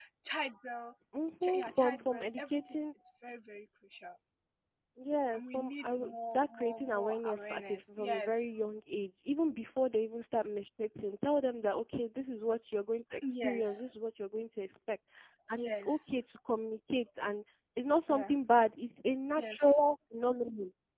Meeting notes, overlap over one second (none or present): present